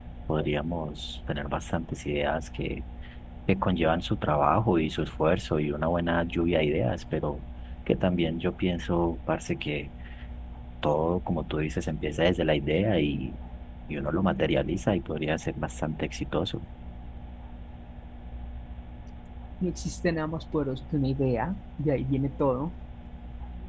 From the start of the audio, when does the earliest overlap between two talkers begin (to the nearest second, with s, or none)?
none